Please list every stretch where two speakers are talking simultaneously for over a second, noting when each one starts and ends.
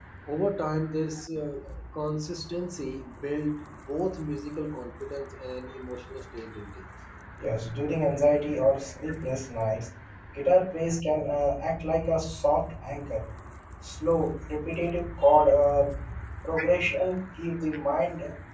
none

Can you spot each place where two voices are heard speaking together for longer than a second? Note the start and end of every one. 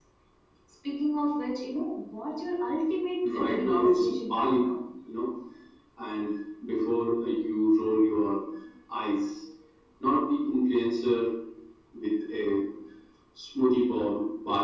3.3-4.7

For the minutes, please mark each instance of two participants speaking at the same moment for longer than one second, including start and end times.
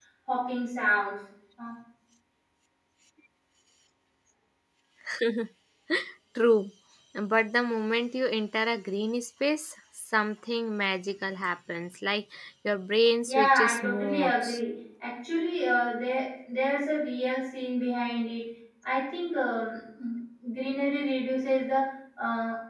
13.3-14.6

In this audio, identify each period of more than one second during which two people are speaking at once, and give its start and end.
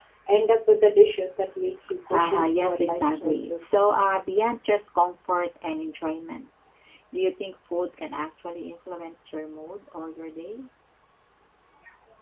2.1-3.6

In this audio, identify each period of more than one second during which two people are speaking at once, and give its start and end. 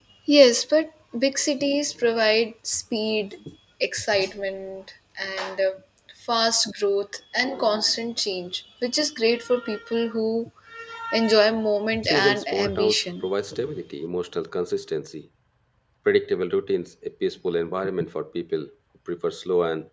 12.0-13.3

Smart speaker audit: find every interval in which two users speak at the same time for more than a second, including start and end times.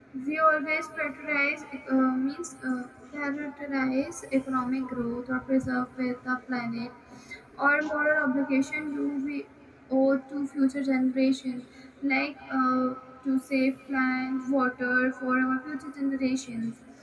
none

